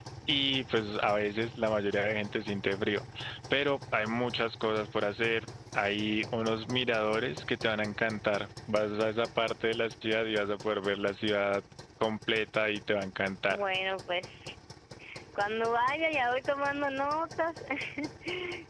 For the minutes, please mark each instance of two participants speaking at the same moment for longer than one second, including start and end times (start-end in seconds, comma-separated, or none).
none